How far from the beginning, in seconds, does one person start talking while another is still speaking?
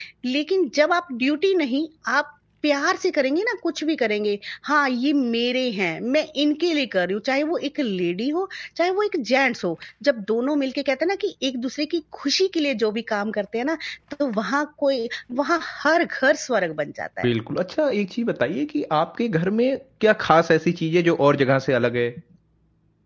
none

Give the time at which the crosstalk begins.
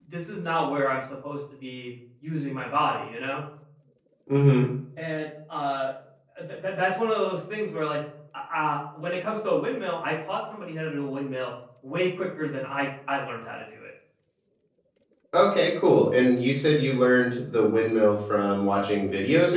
none

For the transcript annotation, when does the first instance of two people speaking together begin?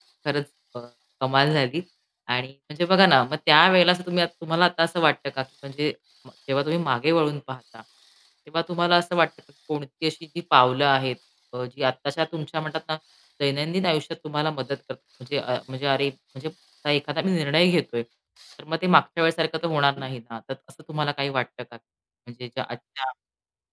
none

